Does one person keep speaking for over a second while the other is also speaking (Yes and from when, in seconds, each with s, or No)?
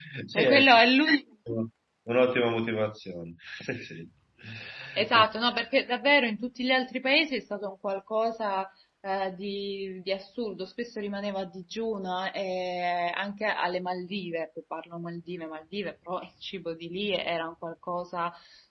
No